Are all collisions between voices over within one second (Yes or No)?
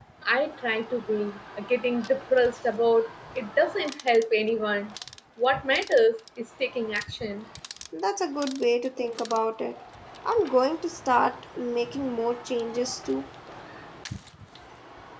Yes